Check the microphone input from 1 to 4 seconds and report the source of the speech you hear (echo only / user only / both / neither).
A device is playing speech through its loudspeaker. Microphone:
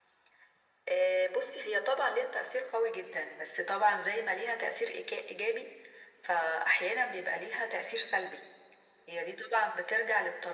echo only